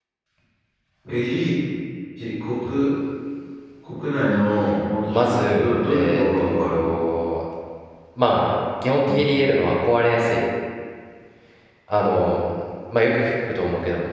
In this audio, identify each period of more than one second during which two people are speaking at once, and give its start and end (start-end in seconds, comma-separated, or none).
5.1-6.9